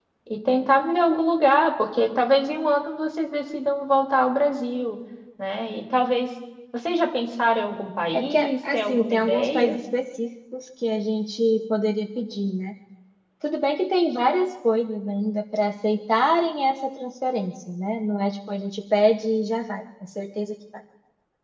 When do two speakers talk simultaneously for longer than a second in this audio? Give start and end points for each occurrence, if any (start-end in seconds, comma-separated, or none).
8.1-9.8